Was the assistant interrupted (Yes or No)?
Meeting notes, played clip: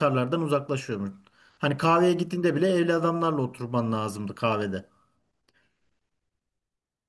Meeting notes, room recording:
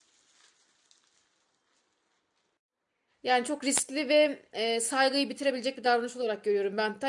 Yes